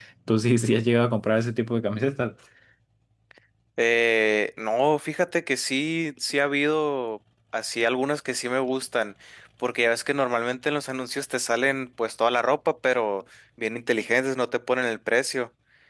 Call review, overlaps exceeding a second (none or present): none